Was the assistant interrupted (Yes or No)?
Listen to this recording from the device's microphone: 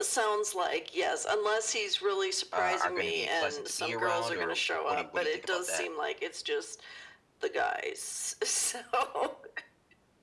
Yes